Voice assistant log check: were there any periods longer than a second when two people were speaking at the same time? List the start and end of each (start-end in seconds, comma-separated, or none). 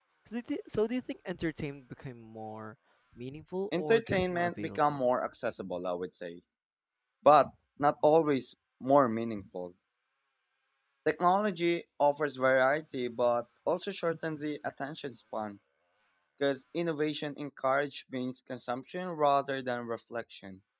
3.8-5.0